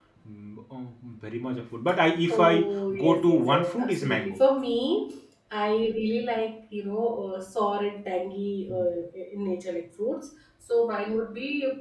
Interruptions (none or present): present